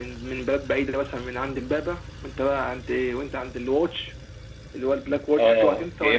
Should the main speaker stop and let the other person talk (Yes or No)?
Yes